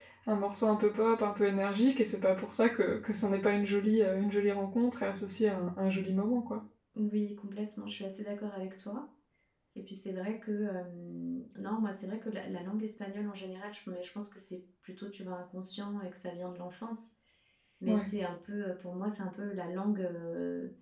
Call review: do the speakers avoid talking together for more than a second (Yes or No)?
Yes